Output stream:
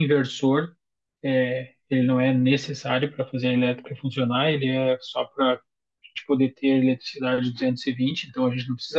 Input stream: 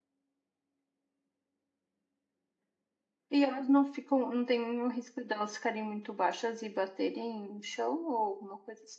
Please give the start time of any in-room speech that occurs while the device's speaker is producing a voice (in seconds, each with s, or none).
3.3 s